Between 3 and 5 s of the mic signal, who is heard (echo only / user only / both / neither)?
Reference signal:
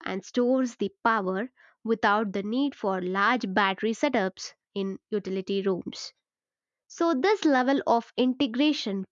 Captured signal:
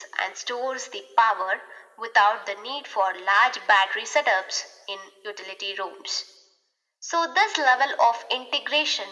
echo only